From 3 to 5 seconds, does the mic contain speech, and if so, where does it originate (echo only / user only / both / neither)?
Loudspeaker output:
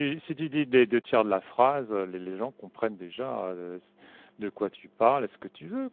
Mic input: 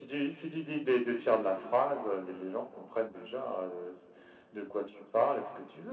echo only